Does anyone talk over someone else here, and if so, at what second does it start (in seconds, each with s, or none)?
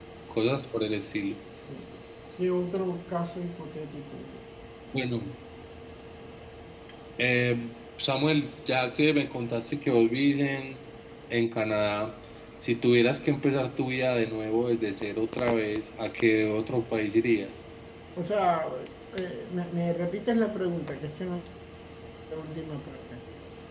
none